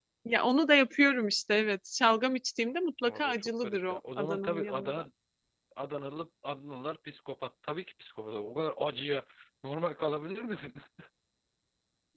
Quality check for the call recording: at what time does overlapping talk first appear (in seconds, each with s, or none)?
3.0 s